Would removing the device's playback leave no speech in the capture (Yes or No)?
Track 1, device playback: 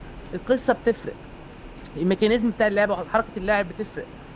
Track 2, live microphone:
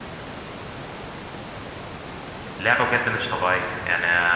No